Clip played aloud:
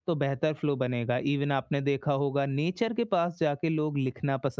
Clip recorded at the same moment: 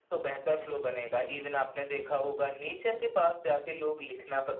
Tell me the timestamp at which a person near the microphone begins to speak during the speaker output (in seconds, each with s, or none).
none